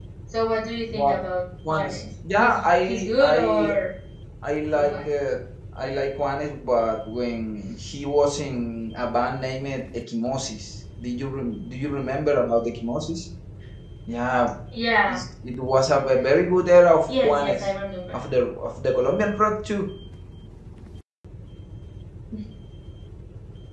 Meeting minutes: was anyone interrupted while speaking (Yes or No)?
Yes